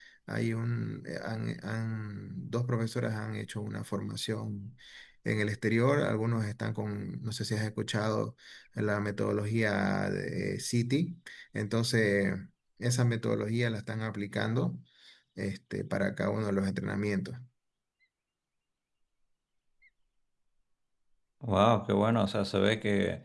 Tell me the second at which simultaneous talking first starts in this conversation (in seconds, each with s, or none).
none